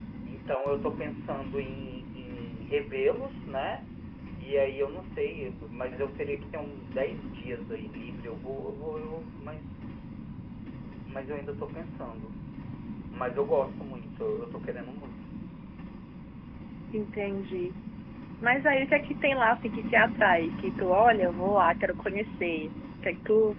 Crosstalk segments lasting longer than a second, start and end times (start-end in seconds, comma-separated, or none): none